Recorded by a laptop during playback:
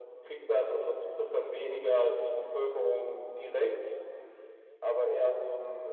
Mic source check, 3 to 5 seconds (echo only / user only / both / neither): echo only